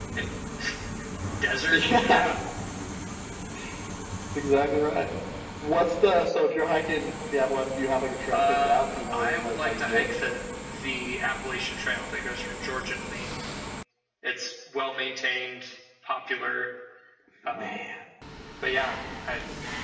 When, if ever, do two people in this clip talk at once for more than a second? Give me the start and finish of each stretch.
8.3-10.1

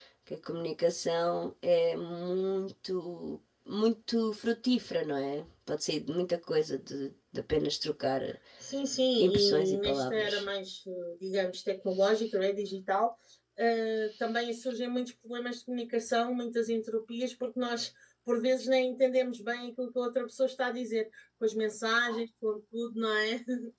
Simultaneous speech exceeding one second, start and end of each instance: 9.2-10.5

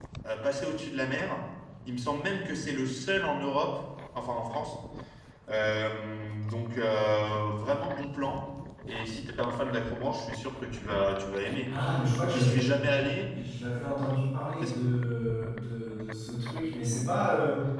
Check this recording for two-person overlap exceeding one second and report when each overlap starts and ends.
none

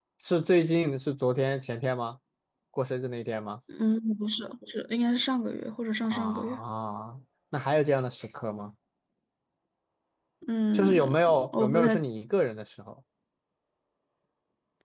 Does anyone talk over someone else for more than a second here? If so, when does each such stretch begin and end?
10.7-12.0

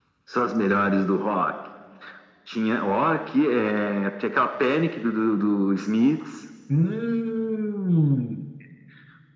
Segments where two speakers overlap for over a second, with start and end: none

